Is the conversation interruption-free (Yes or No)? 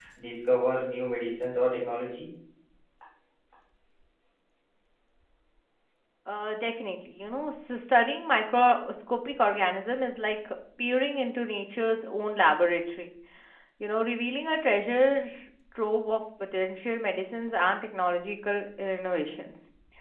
Yes